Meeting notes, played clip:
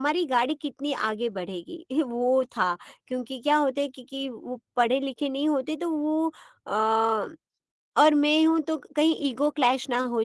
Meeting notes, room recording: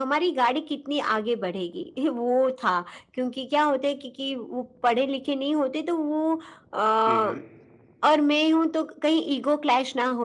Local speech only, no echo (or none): हुँ, हुँ।